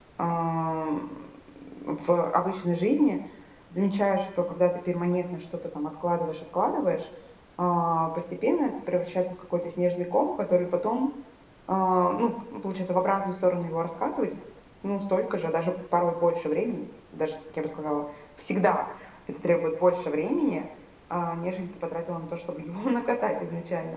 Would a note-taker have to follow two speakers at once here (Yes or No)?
No